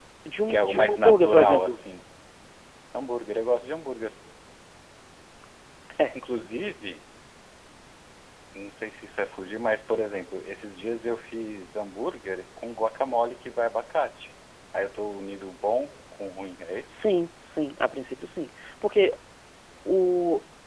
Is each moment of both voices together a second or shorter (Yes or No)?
No